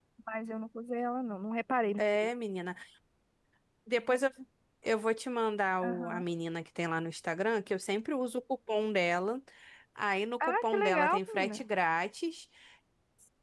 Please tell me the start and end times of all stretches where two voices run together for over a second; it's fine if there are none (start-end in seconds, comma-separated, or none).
10.4-11.6